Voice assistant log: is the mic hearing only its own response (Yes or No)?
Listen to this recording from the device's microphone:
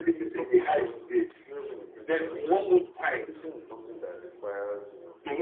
No